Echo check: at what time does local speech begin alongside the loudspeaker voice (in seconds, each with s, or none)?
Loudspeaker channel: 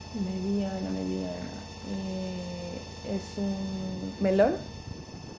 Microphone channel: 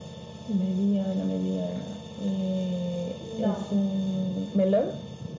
3.2 s